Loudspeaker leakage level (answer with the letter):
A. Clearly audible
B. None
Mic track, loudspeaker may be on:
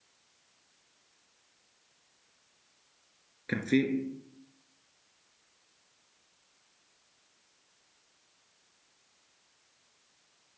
B